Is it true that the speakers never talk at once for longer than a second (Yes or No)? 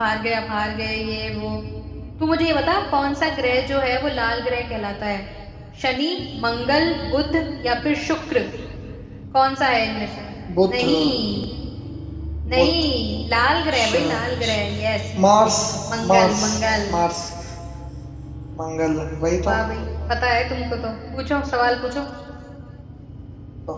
Yes